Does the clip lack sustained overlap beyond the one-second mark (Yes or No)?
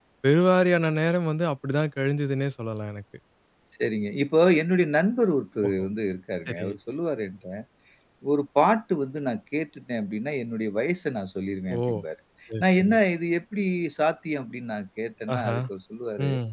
Yes